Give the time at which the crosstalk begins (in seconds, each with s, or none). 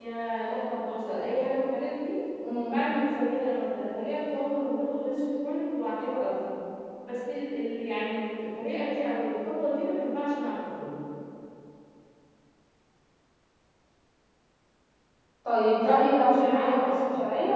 15.8 s